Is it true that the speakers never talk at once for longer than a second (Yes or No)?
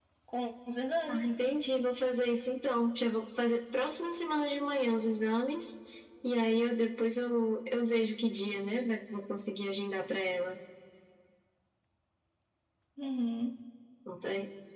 Yes